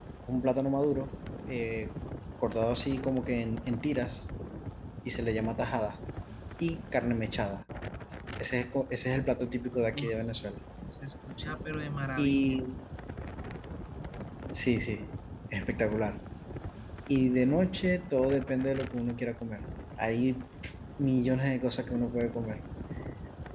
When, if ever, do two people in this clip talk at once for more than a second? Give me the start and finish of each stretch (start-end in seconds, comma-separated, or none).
none